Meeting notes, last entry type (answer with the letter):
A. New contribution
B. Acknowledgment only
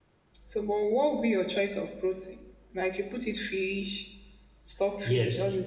A